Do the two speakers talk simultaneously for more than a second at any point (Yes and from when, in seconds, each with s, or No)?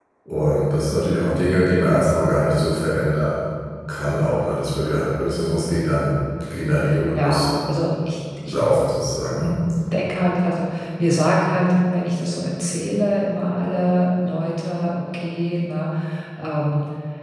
No